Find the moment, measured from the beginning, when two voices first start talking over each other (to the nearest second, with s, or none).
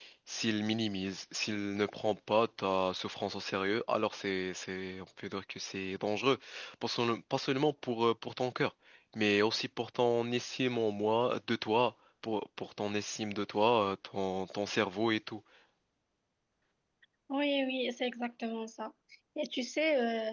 none